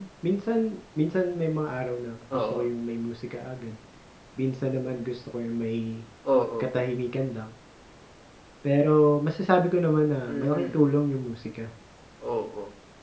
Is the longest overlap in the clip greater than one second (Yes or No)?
No